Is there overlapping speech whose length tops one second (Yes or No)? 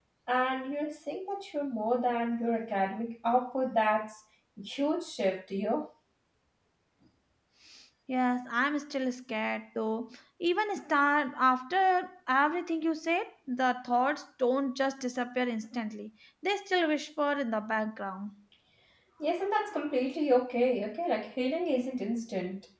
No